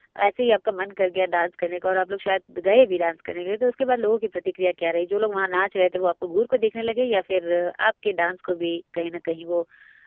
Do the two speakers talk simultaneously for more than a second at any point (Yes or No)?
No